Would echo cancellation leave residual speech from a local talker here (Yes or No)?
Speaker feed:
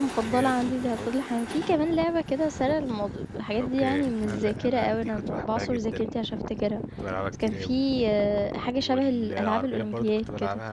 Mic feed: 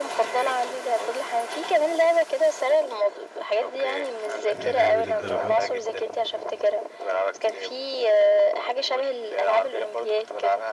Yes